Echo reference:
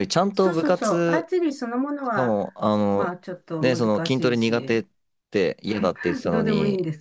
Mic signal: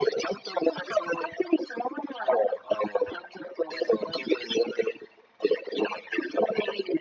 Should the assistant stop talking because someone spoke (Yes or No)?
No